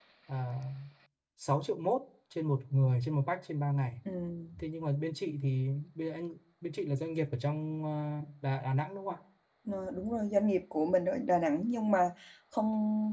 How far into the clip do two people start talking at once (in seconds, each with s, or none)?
none